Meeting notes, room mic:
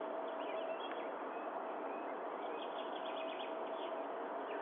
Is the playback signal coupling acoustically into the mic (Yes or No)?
No